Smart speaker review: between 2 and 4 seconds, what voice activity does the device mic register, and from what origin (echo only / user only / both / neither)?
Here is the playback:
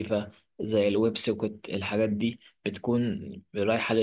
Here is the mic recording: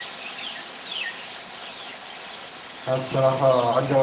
user only